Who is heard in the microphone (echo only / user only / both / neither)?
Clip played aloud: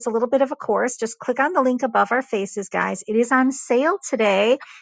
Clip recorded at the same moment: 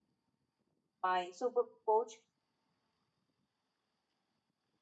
user only